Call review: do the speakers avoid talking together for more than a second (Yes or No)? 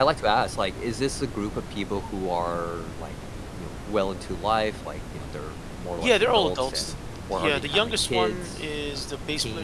No